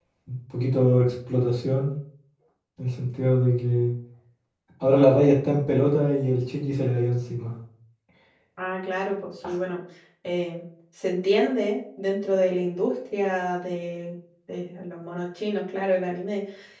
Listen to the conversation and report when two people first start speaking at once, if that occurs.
none

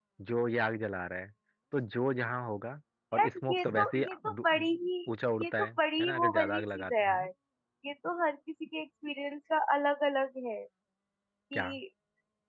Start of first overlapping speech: 3 s

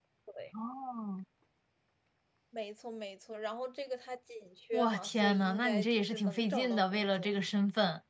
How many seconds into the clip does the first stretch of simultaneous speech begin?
5 s

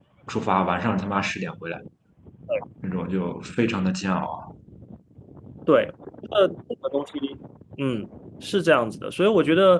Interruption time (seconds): none

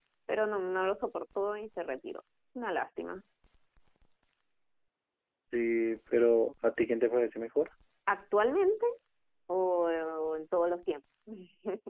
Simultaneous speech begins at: none

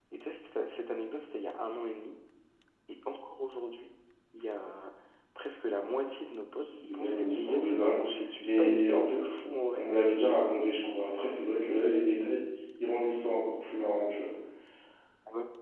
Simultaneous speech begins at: 7 s

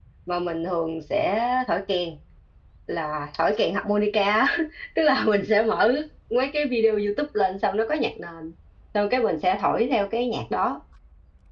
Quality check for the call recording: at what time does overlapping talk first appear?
none

